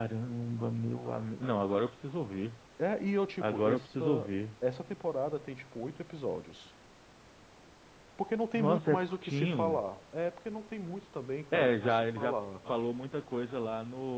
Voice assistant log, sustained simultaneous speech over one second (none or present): present